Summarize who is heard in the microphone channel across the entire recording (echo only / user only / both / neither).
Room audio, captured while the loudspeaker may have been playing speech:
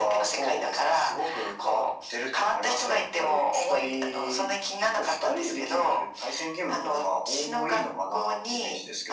echo only